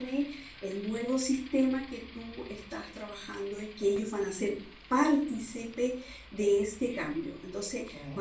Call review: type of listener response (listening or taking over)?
listening